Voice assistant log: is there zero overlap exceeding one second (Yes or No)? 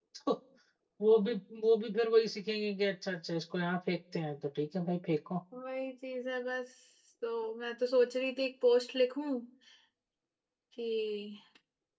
Yes